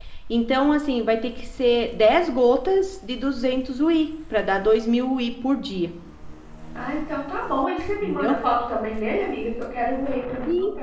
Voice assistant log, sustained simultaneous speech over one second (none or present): none